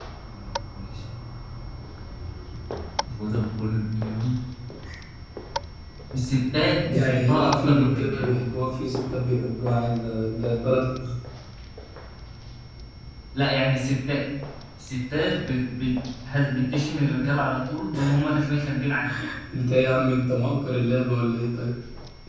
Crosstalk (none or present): present